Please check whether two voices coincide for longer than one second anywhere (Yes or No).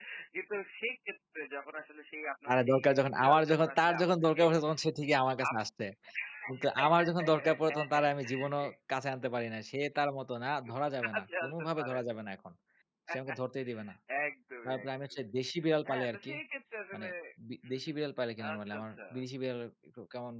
Yes